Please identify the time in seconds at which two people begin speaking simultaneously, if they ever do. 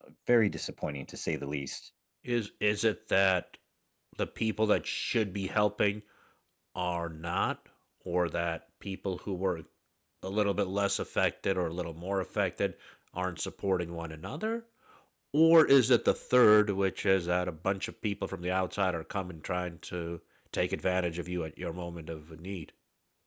none

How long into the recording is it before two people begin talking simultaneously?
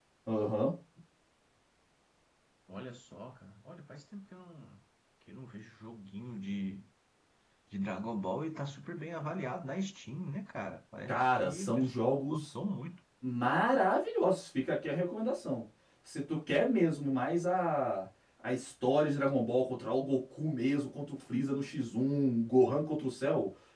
11 s

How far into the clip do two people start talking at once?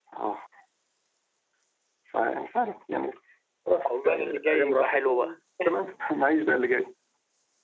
4 s

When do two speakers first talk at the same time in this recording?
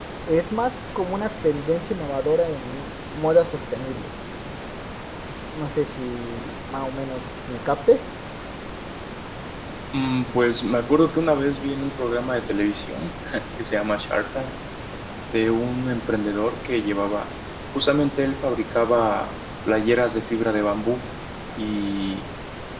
none

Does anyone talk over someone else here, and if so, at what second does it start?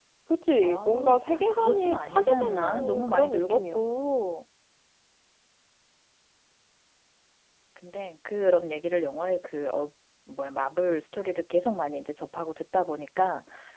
1 s

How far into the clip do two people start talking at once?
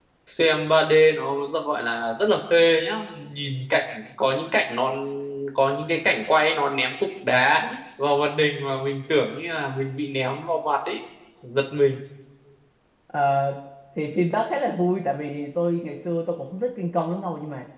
none

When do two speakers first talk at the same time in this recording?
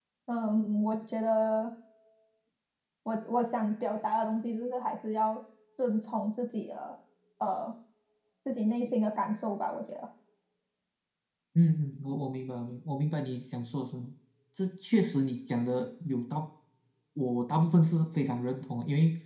none

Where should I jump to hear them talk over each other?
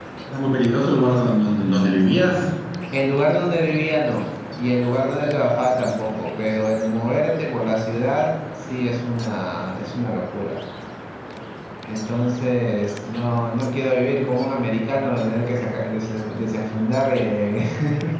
none

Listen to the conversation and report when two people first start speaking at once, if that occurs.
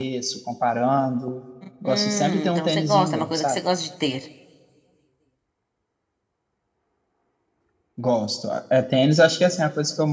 2 s

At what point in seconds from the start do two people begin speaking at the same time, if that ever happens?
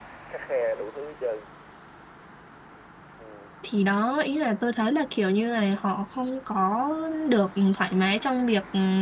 none

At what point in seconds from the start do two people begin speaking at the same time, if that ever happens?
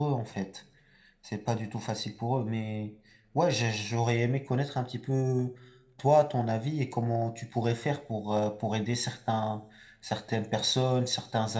none

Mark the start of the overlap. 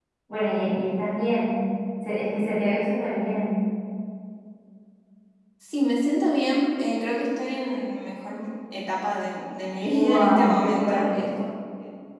10 s

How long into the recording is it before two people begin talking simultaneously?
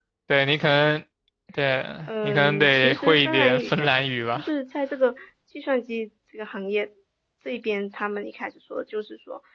2 s

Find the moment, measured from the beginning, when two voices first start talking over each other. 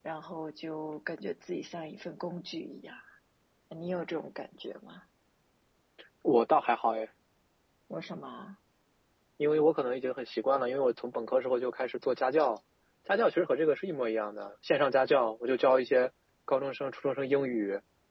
none

